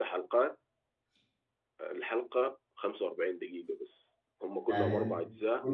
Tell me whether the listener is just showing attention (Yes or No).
No